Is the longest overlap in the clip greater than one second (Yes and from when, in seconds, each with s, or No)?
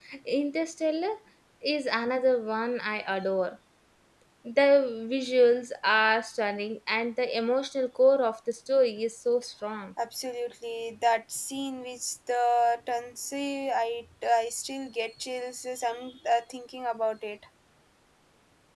No